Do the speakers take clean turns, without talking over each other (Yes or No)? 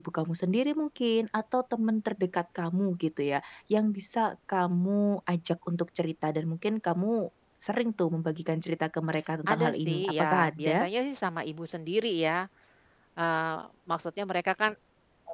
No